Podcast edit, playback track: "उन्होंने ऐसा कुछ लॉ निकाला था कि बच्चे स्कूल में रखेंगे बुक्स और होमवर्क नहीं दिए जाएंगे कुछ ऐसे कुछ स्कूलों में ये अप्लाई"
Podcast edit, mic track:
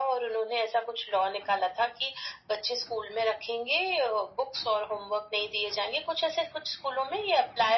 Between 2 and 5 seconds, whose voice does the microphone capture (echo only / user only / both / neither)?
echo only